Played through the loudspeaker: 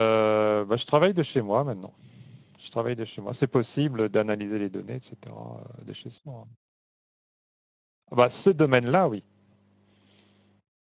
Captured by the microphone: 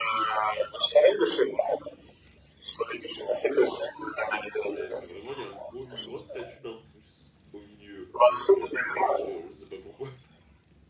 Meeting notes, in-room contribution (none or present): present